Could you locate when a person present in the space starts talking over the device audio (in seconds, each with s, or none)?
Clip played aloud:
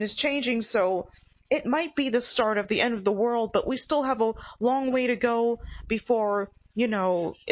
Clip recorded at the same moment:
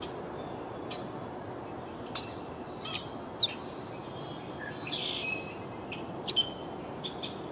none